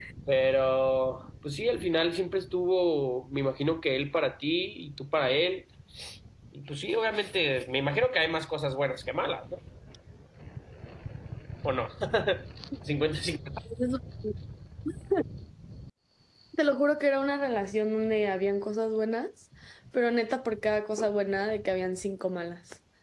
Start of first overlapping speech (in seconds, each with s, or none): none